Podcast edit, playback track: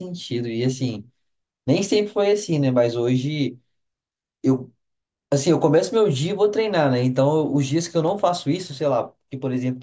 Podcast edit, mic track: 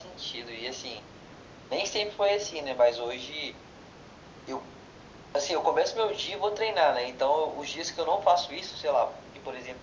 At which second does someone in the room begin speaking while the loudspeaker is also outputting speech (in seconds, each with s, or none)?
none